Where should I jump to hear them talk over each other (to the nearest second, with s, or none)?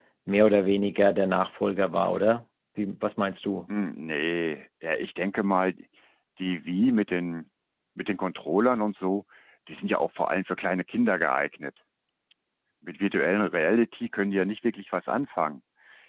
none